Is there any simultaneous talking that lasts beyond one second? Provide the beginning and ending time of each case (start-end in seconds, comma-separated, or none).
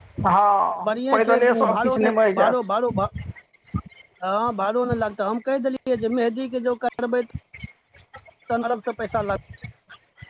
1.1-2.5